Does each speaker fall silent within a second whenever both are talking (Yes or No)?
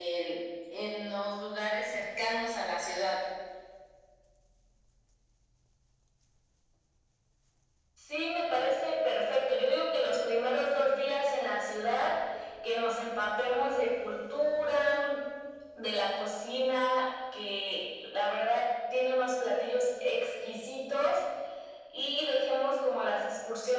Yes